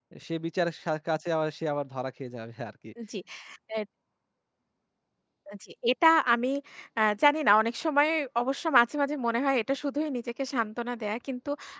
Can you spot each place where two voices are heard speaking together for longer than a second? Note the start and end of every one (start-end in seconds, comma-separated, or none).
none